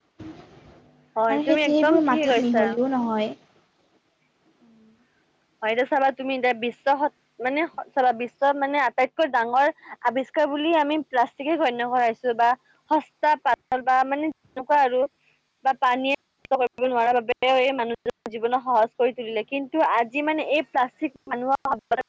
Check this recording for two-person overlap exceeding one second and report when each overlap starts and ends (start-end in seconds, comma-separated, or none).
1.3-2.7